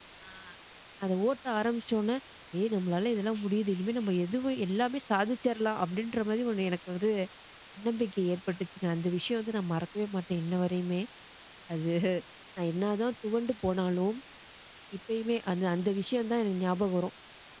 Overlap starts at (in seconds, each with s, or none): none